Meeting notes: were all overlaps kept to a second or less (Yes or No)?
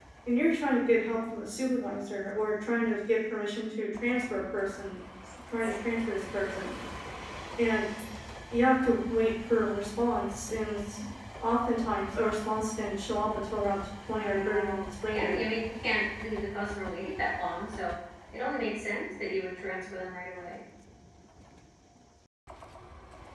No